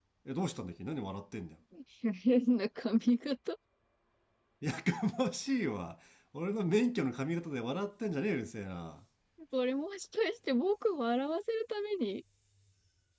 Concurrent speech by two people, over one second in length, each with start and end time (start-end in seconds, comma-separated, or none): none